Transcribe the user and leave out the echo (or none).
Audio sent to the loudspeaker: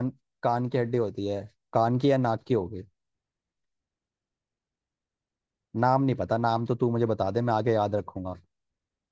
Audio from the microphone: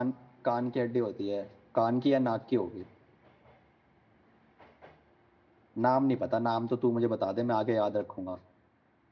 none